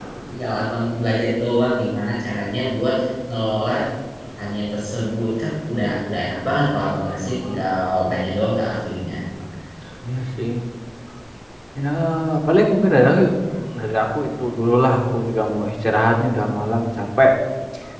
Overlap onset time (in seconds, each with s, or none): none